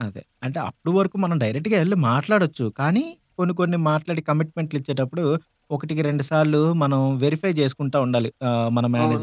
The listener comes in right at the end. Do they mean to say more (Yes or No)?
Yes